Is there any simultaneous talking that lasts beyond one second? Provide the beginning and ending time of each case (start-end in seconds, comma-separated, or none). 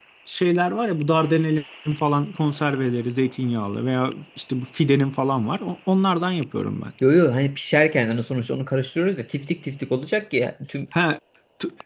none